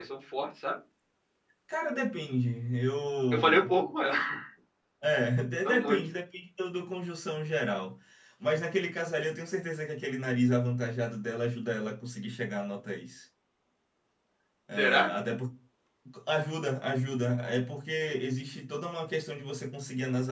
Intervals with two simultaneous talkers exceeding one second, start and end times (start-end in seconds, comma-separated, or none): none